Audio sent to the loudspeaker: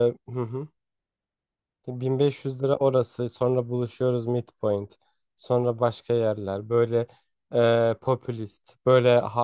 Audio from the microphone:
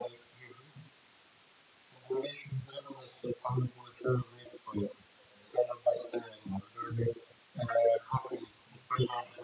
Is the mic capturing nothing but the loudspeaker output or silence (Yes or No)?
Yes